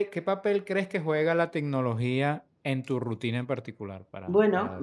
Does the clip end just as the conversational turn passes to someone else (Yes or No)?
Yes